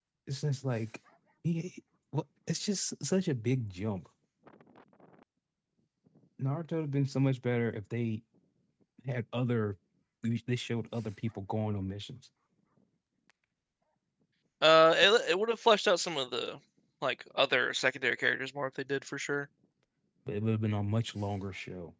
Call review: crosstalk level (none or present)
none